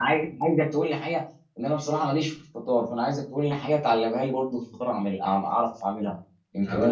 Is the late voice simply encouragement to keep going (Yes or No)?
No